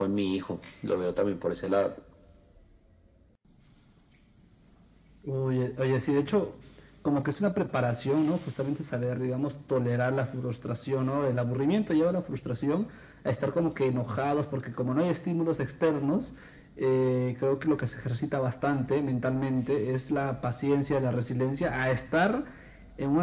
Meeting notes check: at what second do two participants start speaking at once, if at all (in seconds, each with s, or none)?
none